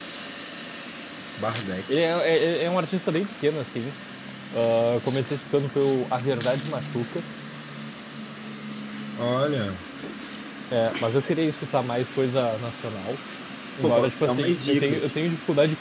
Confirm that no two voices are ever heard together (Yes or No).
No